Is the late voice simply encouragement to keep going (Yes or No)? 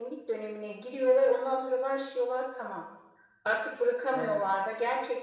Yes